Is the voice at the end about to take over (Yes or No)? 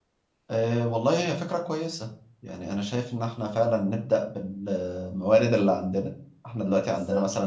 No